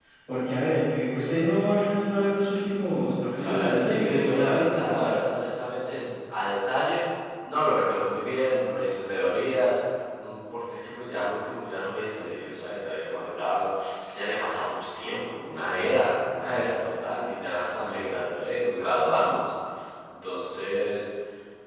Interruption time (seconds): 3.3 s

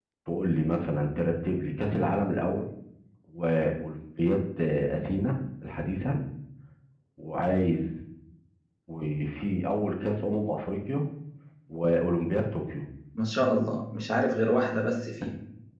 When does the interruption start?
none

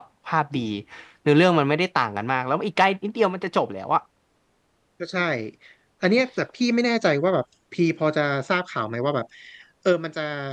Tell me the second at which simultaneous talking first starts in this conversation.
none

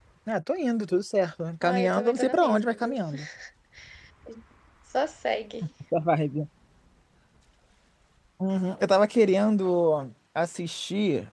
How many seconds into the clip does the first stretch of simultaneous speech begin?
1.6 s

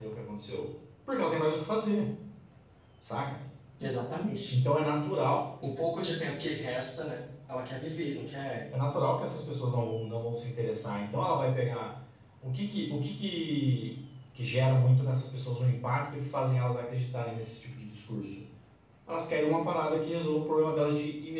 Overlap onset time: none

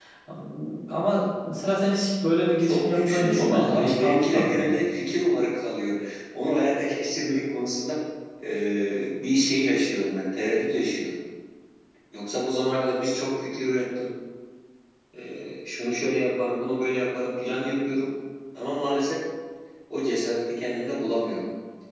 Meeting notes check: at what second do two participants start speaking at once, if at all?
2.6 s

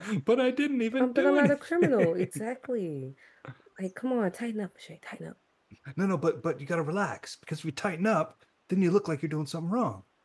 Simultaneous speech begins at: 1.0 s

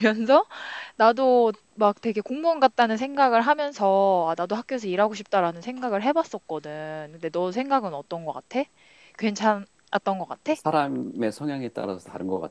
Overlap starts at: none

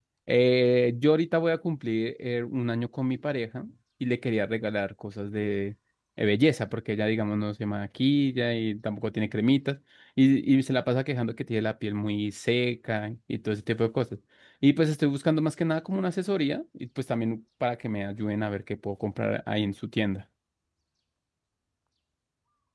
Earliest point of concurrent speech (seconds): none

